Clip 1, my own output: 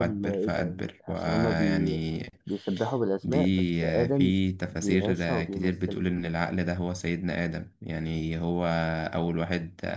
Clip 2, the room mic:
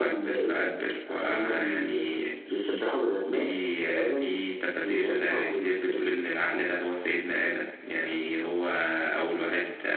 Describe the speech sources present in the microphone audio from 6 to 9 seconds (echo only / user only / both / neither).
echo only